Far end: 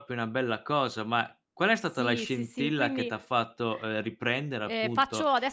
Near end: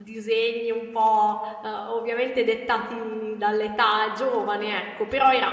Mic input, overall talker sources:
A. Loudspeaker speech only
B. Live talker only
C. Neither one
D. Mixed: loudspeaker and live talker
B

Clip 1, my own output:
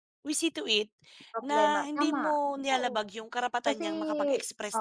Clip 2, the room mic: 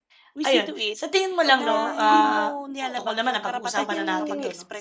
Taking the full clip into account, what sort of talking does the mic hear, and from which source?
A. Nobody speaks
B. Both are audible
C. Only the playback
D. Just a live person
B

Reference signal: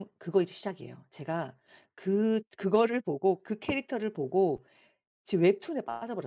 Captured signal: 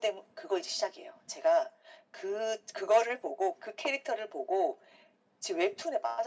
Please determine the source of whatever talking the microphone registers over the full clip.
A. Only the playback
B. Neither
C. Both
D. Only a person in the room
A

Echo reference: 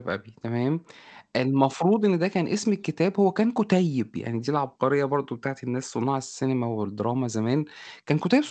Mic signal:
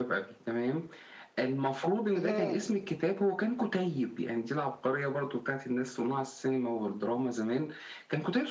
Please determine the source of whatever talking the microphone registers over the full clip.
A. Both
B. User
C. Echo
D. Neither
A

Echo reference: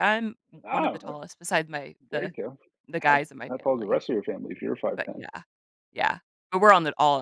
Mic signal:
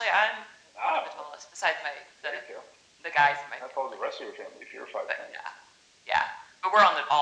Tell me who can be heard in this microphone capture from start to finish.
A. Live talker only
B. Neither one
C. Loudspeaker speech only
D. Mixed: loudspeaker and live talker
C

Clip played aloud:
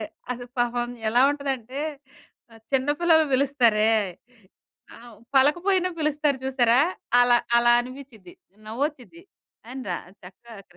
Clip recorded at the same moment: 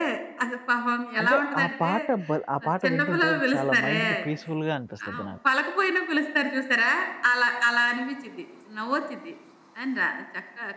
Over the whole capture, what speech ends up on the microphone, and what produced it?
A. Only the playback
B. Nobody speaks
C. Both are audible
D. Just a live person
C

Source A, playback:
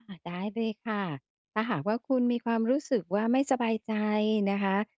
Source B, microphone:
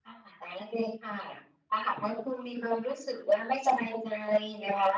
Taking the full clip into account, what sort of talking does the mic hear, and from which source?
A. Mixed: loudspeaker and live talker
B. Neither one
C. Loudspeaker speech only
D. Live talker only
C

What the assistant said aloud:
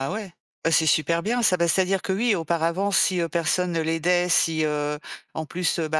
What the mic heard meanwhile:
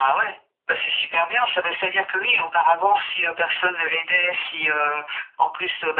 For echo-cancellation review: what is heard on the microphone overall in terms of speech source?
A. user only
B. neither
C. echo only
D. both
C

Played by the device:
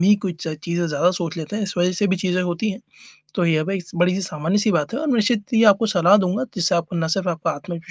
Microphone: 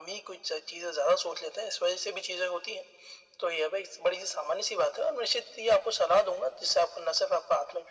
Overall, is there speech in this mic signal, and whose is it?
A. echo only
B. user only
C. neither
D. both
A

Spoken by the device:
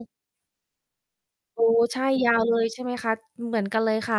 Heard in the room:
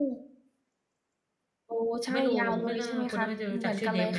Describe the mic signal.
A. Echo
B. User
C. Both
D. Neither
C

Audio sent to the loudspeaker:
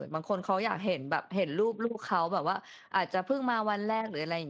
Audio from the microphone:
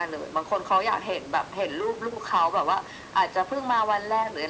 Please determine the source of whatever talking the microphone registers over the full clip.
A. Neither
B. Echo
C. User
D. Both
B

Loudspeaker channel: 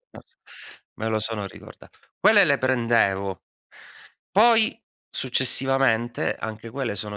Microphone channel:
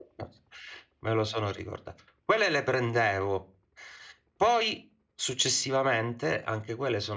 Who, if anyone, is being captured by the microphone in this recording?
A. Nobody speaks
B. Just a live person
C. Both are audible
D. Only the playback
D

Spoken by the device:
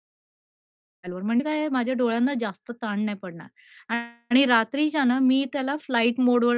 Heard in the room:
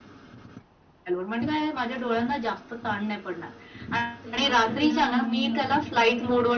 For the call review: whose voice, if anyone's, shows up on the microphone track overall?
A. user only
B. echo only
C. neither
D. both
D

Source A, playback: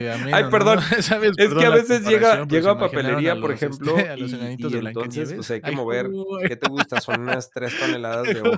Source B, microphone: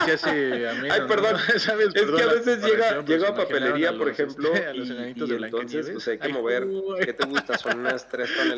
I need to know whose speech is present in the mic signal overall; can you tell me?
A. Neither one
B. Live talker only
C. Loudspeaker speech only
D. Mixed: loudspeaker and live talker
C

